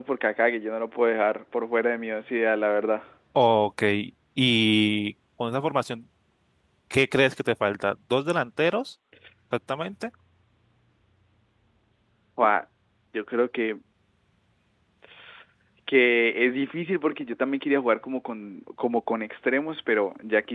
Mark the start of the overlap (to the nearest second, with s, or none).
none